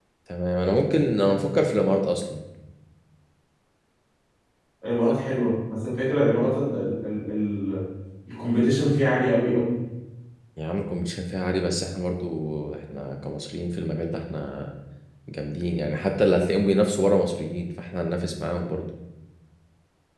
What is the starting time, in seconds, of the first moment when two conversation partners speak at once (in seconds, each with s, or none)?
none